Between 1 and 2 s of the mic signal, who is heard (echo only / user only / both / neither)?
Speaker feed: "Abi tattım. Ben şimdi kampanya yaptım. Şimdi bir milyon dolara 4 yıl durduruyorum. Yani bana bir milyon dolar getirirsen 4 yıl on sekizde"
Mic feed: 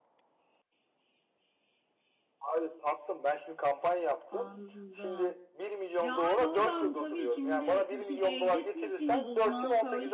neither